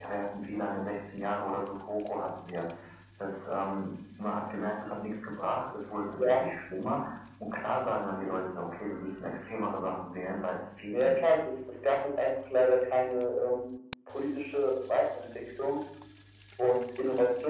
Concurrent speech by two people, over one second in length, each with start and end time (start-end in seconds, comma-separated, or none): none